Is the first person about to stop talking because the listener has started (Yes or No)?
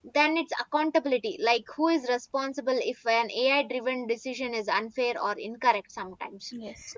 No